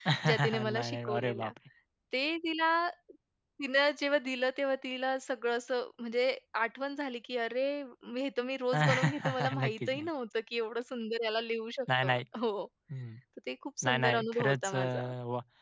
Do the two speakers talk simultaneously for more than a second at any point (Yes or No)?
Yes